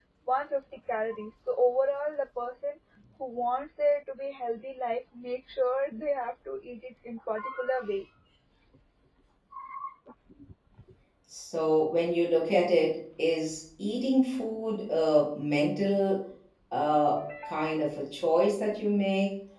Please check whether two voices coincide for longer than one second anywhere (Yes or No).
No